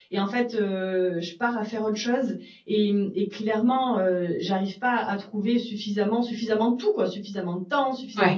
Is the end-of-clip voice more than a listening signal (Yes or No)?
No